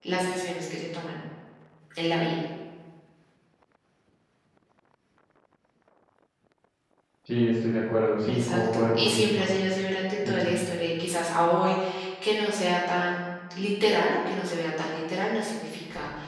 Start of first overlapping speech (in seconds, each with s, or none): 8.3 s